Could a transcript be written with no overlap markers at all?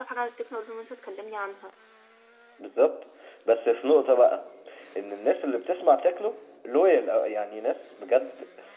Yes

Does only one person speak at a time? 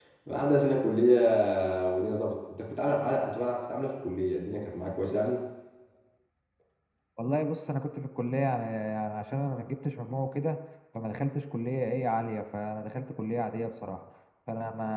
Yes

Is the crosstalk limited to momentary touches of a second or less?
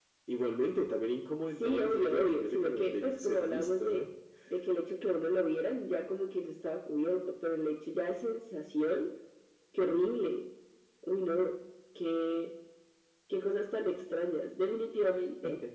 No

